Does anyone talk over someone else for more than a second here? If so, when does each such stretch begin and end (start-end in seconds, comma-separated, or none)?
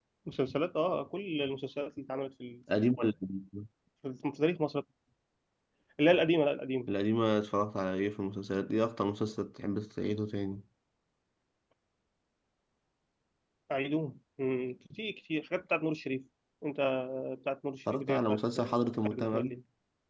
17.9-19.5